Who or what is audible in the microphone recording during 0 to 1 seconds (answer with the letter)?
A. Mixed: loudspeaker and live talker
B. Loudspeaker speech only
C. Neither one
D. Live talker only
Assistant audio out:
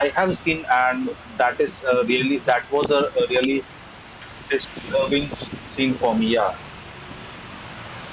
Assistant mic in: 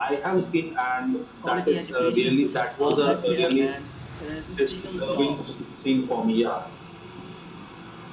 B